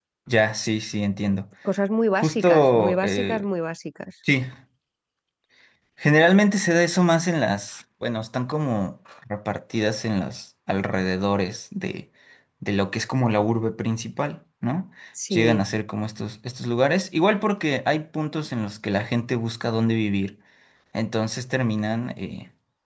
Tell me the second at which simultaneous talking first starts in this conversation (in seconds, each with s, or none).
2.1 s